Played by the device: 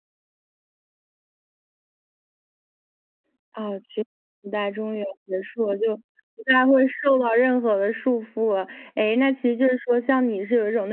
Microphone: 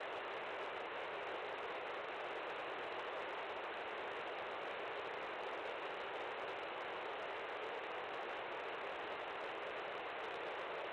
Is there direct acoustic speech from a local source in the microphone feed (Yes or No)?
No